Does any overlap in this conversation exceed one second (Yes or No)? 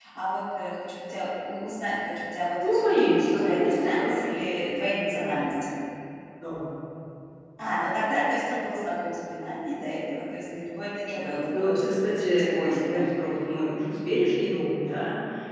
Yes